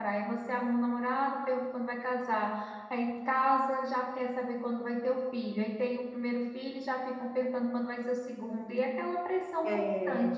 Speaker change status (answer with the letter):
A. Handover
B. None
A